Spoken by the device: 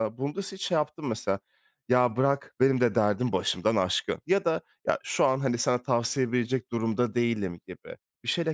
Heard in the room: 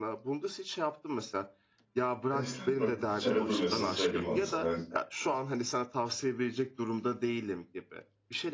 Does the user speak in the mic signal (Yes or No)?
Yes